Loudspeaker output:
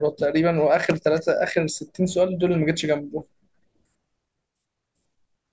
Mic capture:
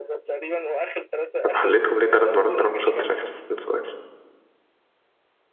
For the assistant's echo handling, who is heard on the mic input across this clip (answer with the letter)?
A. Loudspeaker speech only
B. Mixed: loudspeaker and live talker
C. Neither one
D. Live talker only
B